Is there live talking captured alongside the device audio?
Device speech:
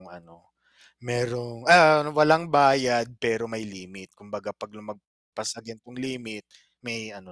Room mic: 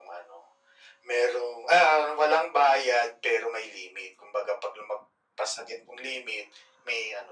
No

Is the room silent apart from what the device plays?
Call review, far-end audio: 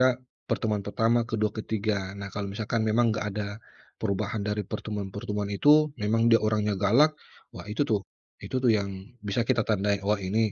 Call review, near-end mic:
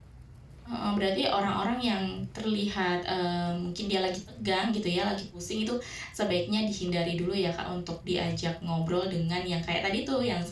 No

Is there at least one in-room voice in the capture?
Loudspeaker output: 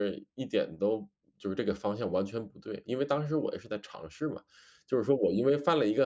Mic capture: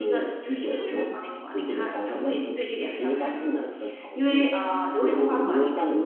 Yes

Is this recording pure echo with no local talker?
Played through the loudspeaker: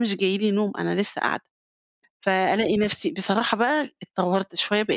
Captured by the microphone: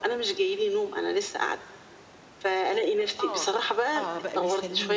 No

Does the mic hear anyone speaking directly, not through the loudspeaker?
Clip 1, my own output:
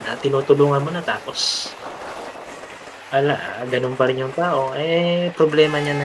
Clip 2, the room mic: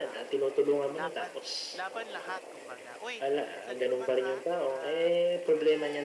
Yes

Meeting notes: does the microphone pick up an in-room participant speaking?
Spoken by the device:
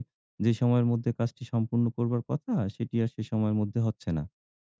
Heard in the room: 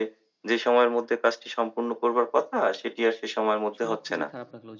Yes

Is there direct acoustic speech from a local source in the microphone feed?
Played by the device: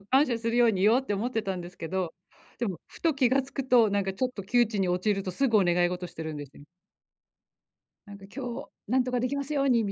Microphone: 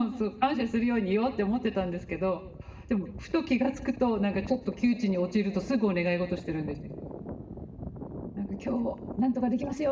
No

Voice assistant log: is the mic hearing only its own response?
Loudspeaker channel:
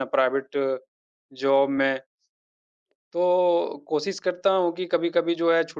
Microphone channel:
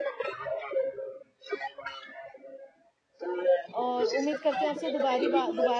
No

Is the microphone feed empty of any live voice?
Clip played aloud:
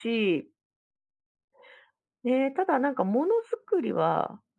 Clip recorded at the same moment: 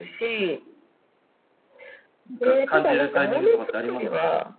No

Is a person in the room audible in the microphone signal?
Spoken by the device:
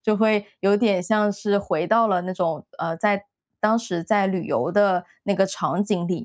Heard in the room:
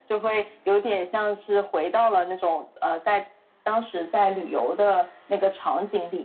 No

